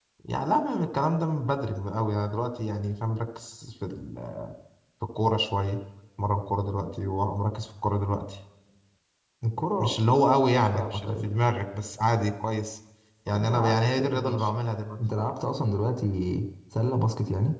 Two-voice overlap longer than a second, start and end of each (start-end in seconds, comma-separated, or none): 13.3-14.5